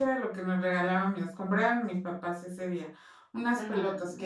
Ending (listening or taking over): listening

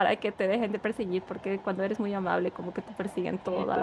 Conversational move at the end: taking over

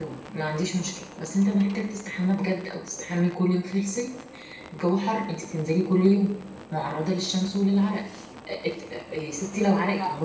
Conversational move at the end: listening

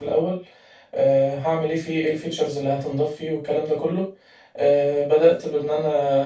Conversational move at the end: listening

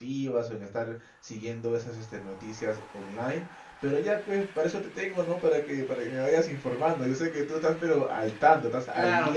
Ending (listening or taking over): taking over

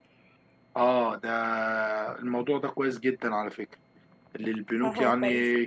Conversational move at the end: listening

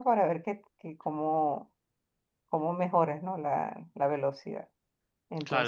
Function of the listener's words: taking over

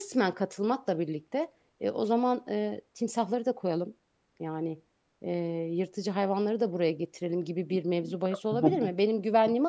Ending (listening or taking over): listening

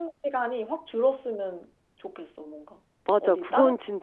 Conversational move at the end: taking over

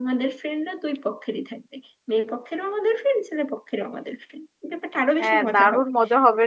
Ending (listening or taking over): taking over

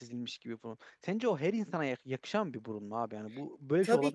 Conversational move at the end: taking over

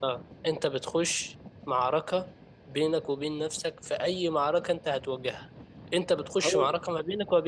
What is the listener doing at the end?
listening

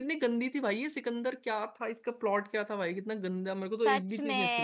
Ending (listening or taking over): taking over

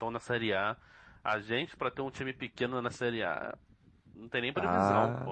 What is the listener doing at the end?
taking over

